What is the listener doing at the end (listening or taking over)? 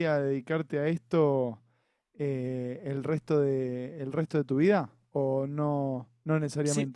taking over